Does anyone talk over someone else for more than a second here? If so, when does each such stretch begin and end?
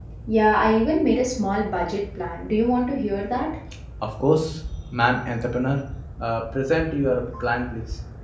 none

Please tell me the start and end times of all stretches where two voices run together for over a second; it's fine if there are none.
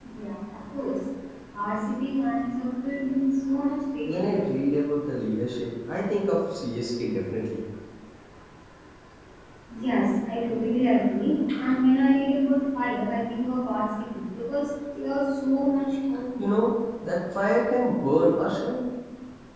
none

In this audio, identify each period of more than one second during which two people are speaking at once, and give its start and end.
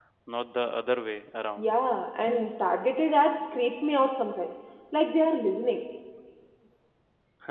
none

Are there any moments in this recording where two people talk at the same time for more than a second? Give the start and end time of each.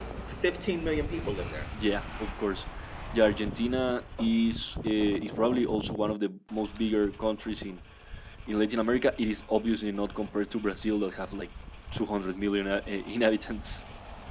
none

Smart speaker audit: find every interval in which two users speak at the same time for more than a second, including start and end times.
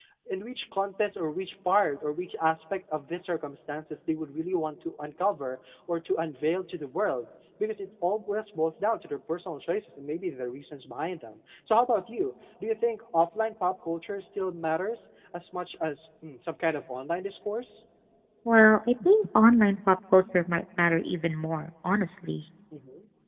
none

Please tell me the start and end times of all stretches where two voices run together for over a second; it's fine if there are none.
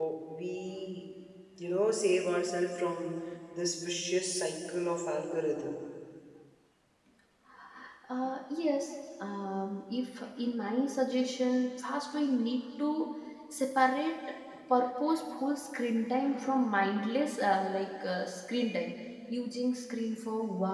none

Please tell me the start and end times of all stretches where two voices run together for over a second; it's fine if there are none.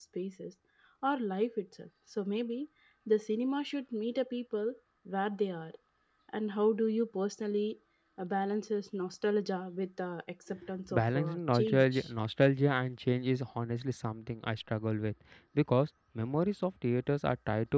10.9-12.1

